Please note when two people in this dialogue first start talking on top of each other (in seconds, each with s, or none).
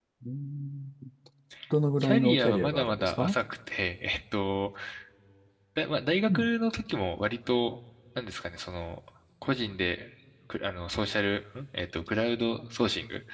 2.0 s